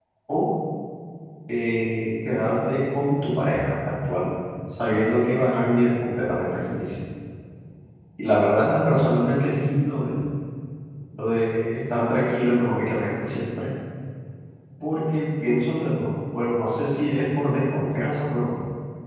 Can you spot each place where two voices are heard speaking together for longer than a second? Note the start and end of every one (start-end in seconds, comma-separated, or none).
none